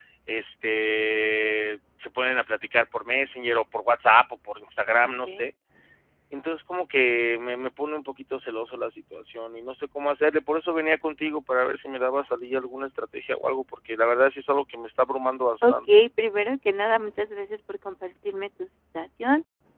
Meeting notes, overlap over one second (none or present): none